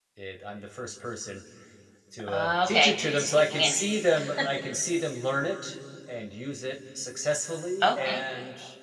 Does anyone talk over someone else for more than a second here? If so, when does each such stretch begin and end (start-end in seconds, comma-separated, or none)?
2.3-3.8